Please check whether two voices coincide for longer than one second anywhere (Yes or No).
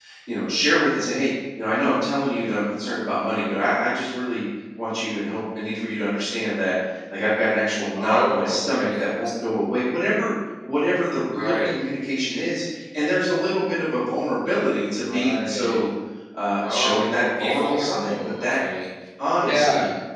Yes